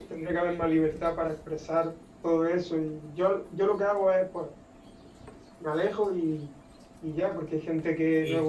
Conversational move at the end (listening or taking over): listening